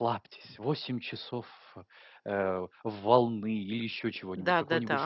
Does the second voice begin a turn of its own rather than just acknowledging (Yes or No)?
Yes